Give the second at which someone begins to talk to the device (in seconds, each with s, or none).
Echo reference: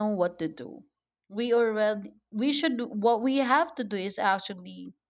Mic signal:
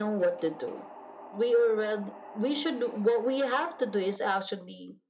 none